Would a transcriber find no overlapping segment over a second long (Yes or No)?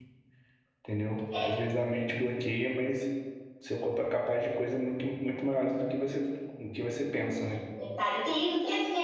Yes